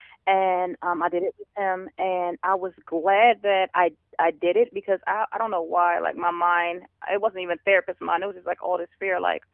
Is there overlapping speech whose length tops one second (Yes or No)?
No